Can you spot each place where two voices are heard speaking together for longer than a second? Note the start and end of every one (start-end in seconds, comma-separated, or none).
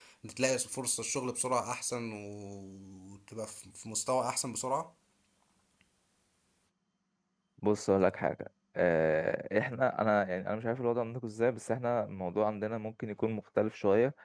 none